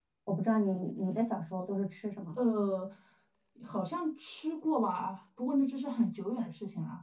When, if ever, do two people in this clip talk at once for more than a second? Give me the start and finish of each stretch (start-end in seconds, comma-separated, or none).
none